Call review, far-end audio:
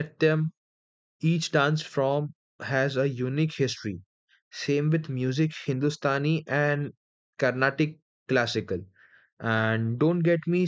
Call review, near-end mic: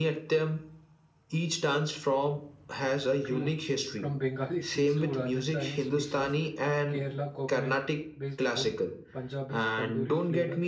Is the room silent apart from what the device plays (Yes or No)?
No